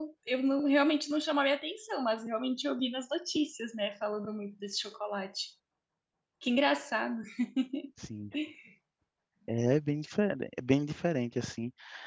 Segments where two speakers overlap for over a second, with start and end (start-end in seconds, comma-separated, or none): none